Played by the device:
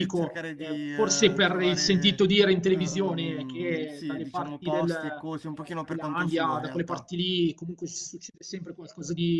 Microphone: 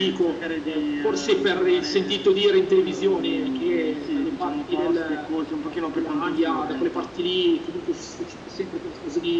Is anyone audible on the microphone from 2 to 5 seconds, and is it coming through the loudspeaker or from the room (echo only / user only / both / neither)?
echo only